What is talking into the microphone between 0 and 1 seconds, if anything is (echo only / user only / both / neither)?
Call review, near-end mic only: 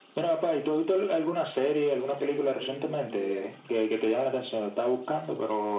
echo only